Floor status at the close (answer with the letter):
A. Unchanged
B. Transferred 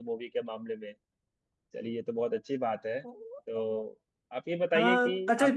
B